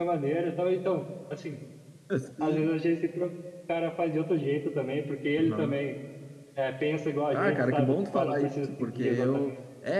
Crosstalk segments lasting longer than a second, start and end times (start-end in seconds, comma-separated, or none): 7.3-9.5